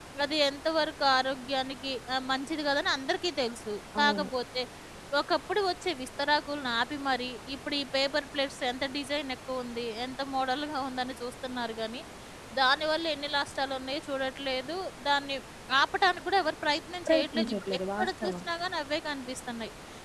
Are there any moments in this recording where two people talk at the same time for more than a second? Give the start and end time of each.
17.1-18.3

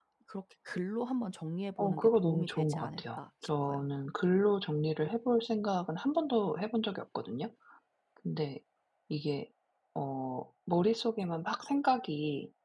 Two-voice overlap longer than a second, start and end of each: 1.8-3.8

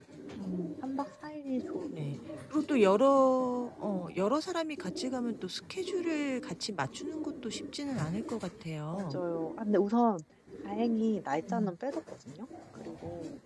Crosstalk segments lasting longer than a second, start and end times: none

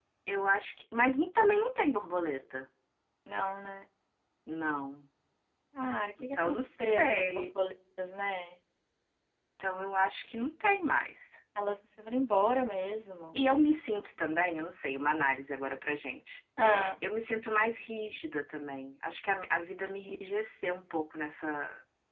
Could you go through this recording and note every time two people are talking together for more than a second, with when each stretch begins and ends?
6.2-7.5

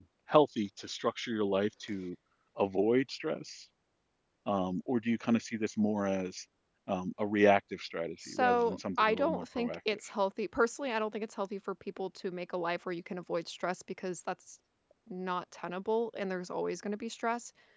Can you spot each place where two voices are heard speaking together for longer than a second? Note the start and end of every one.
8.3-9.8

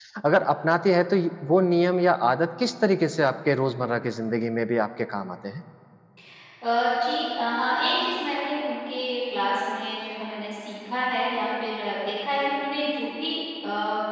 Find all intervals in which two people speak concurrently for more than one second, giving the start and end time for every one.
none

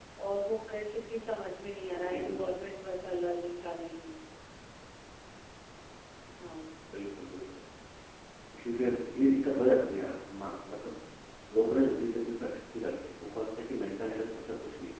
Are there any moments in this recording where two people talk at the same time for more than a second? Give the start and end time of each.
none

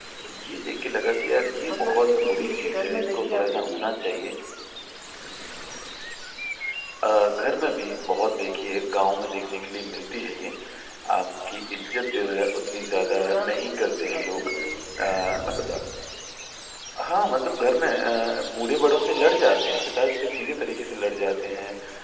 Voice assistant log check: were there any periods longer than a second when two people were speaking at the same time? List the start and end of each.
1.7-3.9, 12.9-14.5

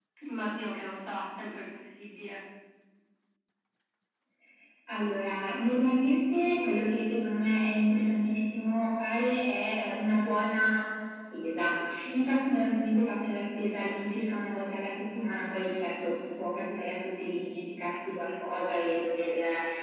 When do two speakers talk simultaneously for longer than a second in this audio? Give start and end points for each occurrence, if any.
none

